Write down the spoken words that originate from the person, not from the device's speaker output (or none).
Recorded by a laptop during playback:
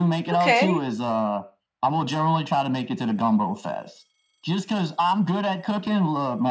Okay.